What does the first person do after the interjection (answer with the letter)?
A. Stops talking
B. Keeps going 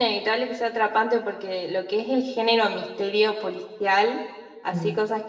B